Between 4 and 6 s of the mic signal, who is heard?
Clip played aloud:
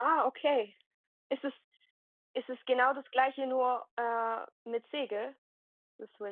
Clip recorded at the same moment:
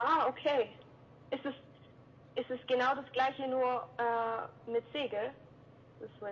echo only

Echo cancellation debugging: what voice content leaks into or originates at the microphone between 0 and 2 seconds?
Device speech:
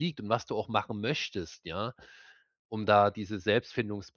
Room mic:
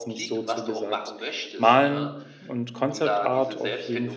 both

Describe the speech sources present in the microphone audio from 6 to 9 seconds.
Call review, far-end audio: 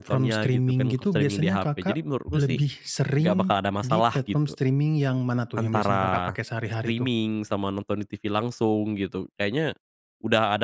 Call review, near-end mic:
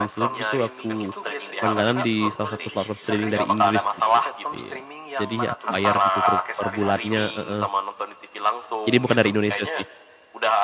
both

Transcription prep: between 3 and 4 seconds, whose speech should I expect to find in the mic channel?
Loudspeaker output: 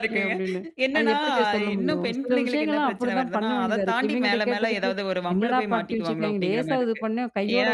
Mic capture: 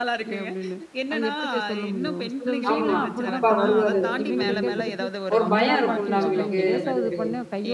both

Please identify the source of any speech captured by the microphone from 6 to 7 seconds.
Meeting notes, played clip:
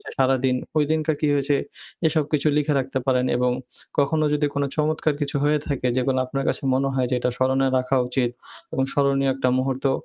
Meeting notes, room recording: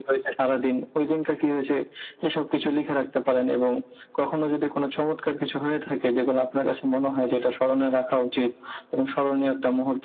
echo only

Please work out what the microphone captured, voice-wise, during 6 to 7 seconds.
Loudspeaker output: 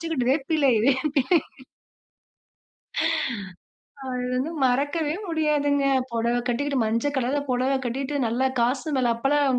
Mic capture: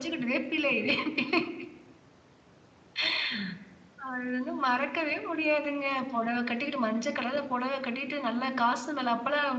echo only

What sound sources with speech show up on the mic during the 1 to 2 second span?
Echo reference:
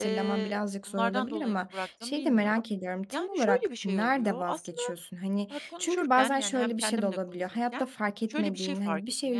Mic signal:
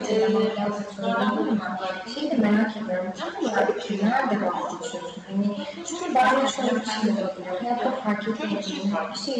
echo only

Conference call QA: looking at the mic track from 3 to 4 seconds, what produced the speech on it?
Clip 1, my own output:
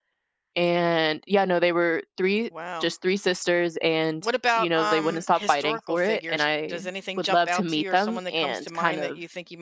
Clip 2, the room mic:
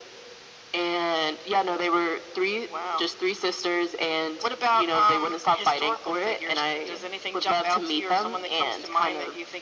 echo only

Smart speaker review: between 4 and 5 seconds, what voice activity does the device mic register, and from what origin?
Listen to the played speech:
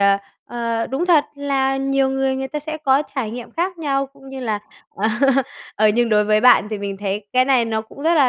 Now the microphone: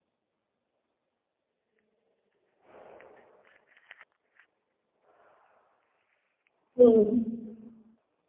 neither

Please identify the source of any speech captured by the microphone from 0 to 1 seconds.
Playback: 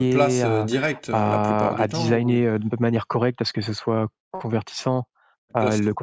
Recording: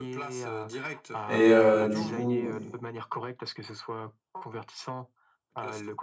echo only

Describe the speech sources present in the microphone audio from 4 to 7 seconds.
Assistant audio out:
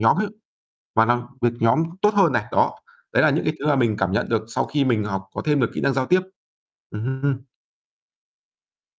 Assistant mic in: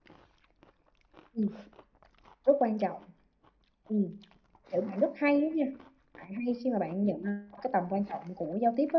user only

